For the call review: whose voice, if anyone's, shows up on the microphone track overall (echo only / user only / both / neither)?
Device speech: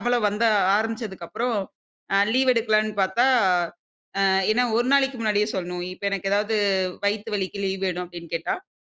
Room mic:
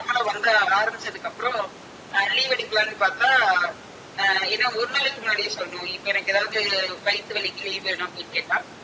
echo only